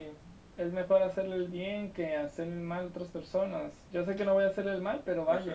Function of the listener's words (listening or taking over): taking over